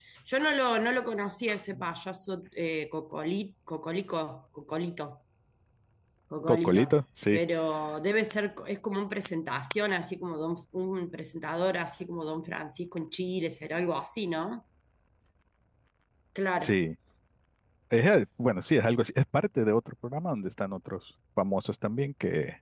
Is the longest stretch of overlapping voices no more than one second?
Yes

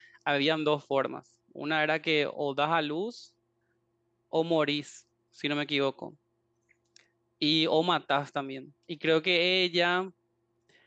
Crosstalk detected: No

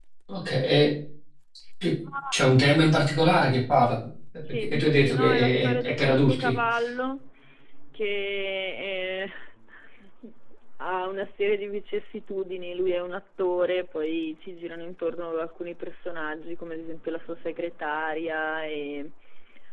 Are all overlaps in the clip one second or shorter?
No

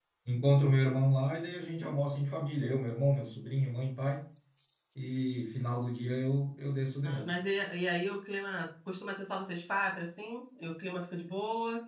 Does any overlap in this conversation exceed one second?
No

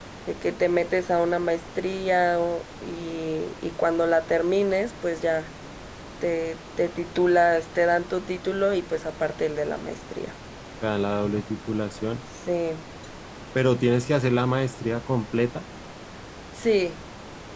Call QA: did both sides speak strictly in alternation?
Yes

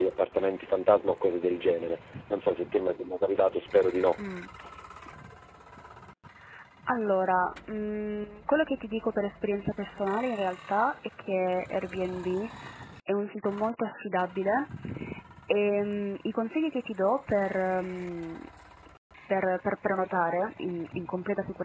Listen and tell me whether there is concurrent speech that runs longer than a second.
No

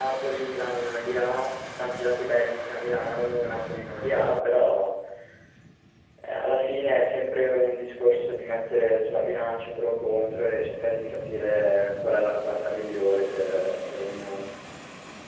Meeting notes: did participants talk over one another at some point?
No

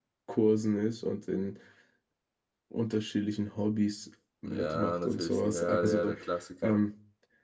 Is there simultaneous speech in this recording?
Yes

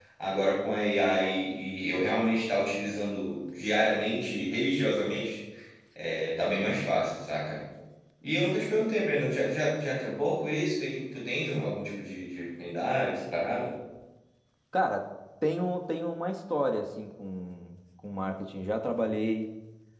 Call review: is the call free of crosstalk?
Yes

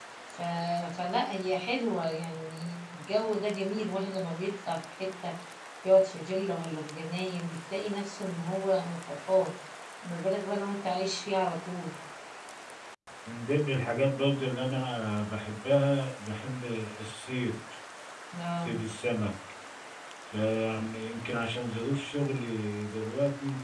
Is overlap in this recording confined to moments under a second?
Yes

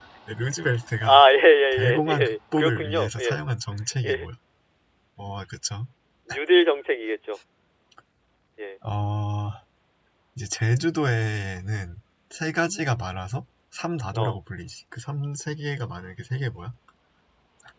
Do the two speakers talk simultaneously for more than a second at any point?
Yes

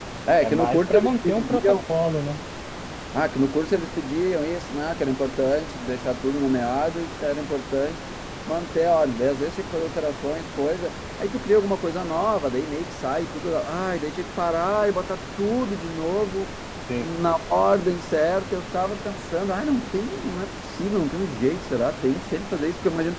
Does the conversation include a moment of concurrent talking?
Yes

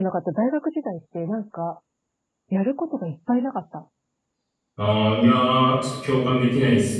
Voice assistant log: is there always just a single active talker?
Yes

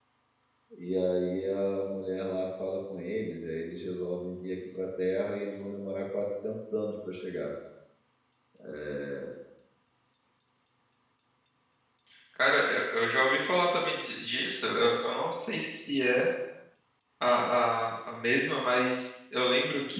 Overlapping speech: No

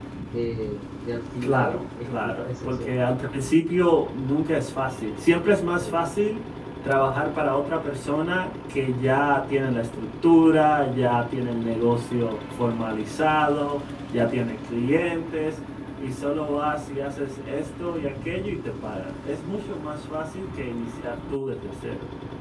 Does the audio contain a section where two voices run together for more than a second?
Yes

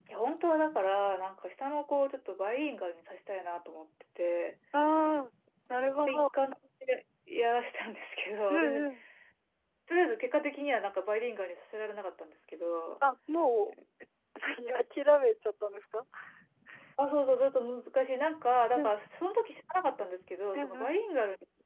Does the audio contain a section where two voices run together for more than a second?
No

